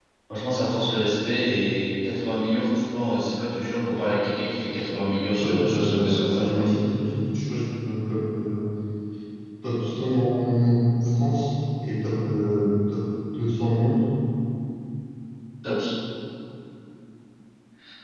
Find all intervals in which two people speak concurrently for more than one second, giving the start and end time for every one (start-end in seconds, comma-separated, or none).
5.4-6.6